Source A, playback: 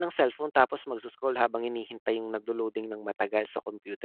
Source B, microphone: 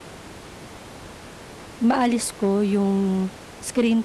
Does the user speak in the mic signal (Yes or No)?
Yes